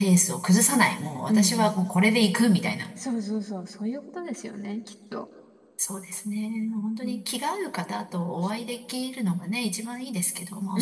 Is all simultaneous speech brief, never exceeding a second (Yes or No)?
Yes